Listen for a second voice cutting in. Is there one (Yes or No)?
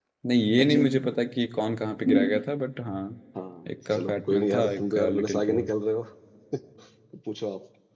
Yes